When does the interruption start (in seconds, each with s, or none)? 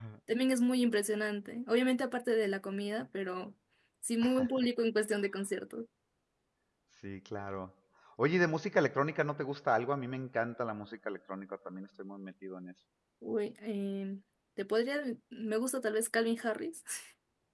none